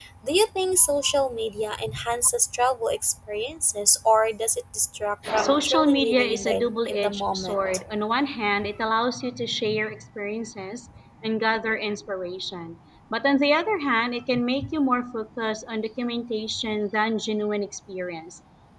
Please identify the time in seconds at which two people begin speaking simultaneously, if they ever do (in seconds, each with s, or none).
5.2 s